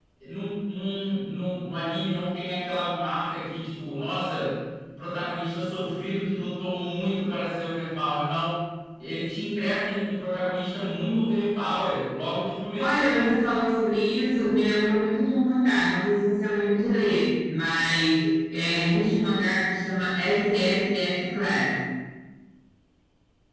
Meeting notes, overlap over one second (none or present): none